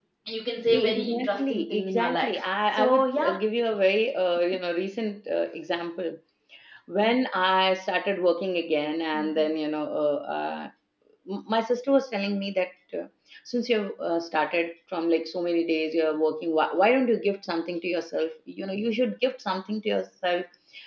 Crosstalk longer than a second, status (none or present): present